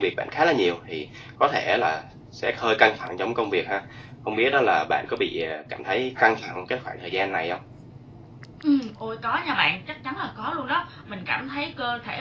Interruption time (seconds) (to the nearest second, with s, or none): none